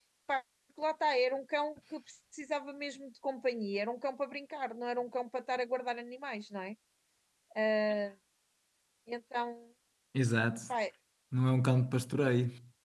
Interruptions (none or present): none